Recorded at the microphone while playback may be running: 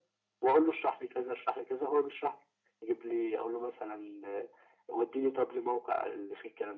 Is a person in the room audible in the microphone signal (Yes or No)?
No